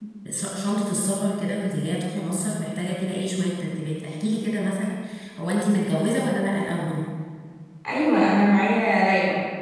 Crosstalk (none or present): none